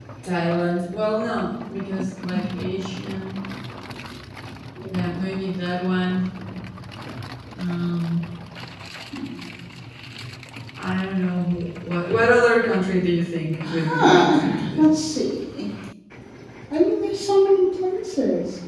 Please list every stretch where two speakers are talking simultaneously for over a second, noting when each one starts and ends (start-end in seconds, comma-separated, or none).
13.6-14.9